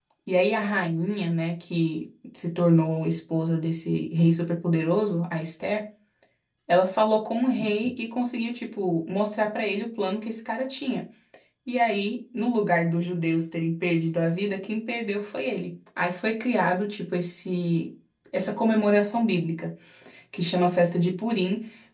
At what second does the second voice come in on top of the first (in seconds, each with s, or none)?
none